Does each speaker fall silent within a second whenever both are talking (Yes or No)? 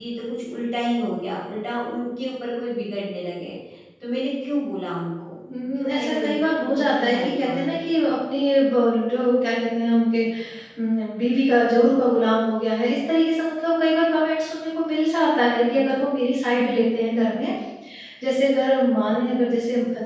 No